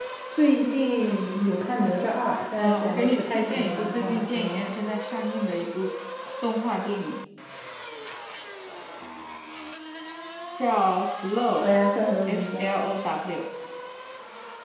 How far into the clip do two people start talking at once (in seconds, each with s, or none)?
2.6 s